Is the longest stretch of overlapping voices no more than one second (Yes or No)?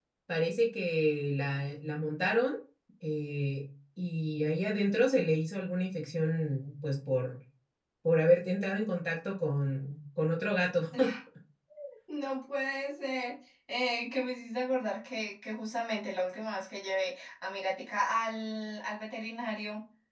Yes